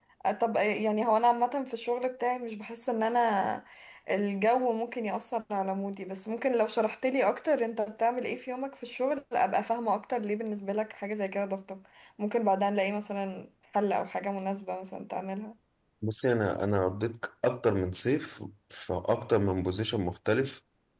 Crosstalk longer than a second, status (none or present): none